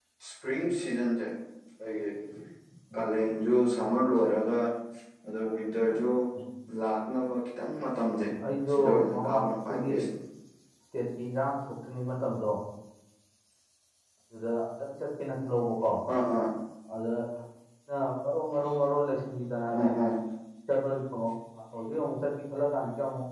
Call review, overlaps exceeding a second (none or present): present